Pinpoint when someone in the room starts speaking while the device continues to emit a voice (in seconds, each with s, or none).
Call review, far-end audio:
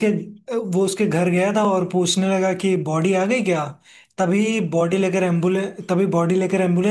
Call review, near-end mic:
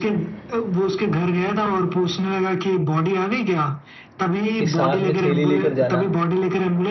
4.5 s